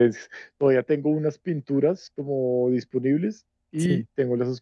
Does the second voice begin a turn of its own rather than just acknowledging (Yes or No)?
No